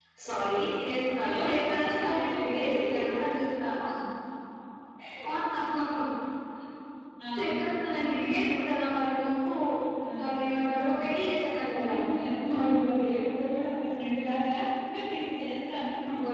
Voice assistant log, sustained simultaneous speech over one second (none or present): present